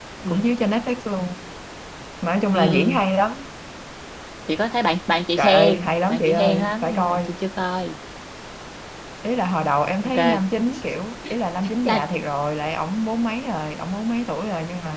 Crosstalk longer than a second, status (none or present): present